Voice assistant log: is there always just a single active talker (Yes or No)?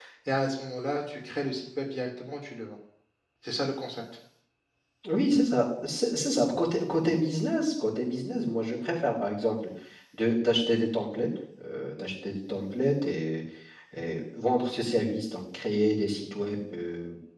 Yes